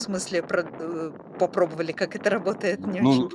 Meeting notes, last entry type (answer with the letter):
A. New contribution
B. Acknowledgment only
A